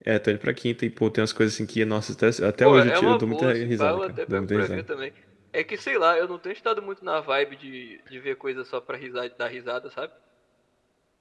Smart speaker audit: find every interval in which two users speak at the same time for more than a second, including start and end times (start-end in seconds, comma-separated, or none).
2.6-4.8